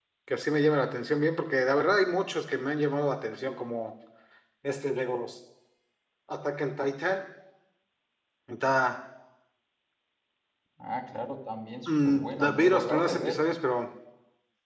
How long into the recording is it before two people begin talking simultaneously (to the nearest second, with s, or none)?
12 s